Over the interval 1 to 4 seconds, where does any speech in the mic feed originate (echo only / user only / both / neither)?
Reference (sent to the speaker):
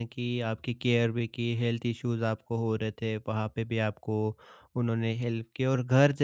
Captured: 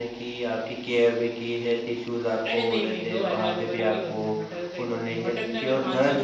both